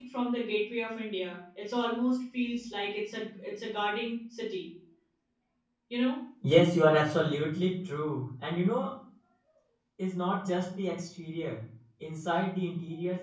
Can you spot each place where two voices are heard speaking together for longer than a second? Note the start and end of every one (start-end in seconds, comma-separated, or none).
none